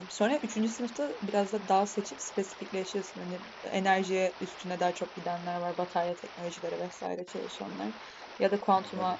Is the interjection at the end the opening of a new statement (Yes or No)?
No